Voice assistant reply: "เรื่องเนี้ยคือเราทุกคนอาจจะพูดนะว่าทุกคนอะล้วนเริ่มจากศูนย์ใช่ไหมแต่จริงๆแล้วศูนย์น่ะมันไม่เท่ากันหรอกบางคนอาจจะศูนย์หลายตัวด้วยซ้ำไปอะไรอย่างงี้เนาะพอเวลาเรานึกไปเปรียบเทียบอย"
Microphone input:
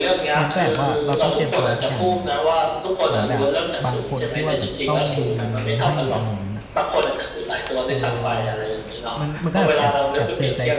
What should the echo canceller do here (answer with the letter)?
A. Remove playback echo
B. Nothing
A